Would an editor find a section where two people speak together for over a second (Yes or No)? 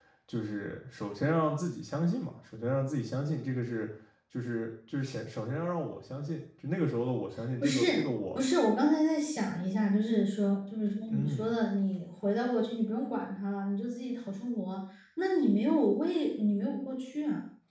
No